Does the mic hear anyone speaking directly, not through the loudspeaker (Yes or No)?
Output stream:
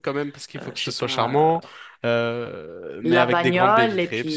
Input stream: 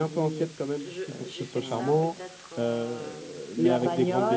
Yes